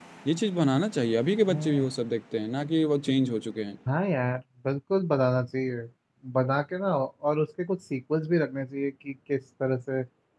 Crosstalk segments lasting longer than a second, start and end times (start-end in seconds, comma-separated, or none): none